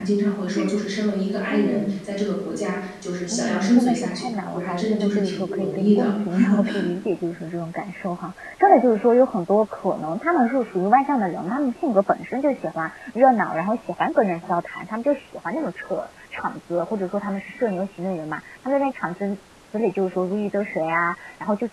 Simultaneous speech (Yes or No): Yes